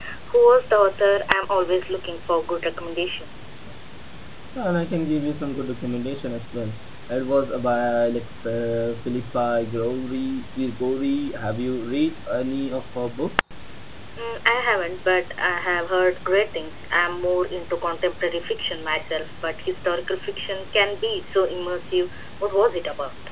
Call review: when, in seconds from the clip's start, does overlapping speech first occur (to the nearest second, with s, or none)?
none